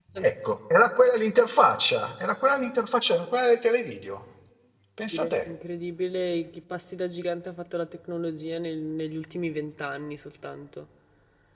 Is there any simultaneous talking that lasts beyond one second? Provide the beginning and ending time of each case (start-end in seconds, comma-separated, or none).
none